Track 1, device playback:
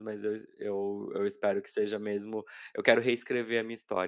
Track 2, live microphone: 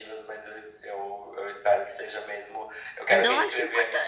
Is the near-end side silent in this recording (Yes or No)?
No